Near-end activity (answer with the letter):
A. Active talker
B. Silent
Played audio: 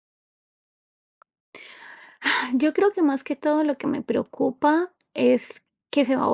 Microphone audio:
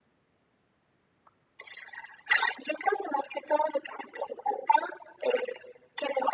B